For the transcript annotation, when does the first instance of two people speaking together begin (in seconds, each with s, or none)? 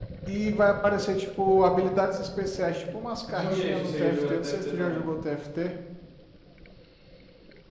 3.3 s